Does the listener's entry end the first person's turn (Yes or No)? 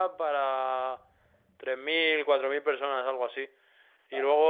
No